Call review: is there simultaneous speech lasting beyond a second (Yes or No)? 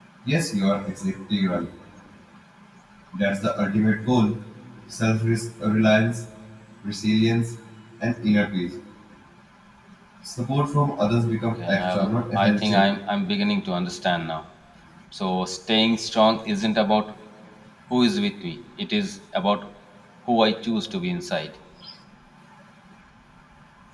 Yes